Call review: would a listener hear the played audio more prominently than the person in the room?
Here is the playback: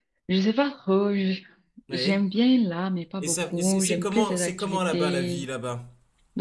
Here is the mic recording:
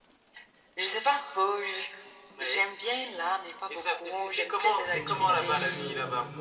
Yes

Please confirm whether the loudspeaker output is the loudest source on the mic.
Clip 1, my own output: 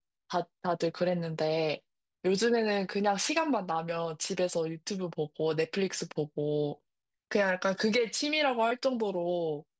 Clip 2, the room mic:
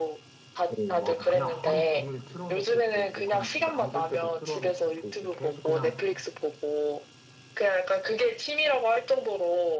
Yes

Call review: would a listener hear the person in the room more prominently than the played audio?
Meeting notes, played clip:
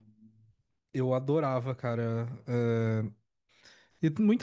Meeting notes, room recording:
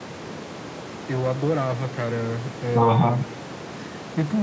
Yes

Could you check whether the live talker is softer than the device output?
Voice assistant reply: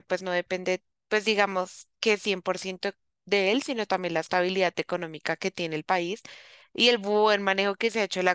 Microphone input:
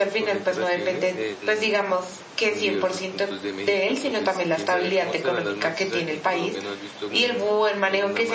Yes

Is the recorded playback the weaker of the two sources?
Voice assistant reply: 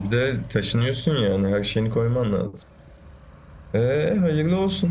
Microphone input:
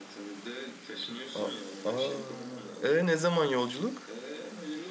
Yes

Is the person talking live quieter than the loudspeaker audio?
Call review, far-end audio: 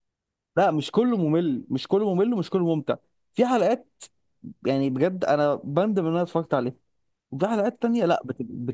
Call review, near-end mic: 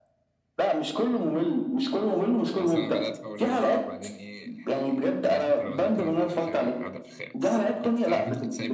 Yes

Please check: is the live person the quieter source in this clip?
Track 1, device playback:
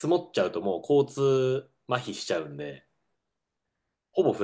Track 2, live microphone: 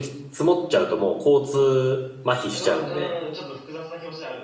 Yes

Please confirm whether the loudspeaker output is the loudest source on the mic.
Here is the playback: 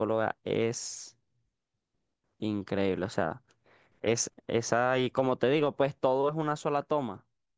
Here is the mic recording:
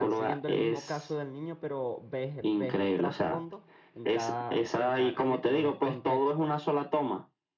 Yes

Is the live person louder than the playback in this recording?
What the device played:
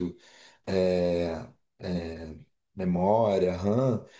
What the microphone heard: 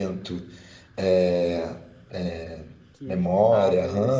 No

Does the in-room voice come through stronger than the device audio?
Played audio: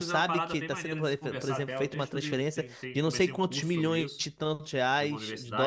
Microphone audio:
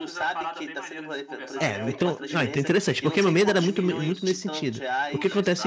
Yes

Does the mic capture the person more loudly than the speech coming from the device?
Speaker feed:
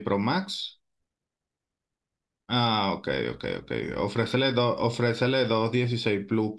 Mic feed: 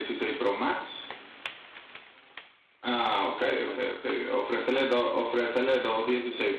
No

